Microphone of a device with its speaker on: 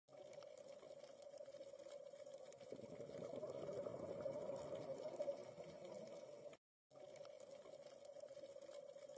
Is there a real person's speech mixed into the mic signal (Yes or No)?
No